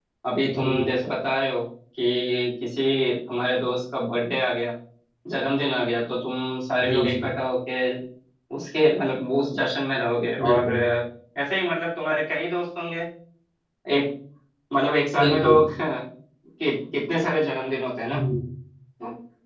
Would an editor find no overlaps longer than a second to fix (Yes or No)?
Yes